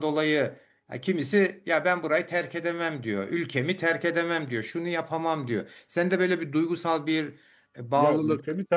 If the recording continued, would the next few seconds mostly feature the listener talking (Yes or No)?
Yes